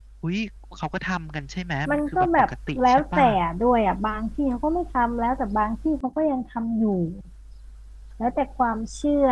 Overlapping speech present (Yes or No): Yes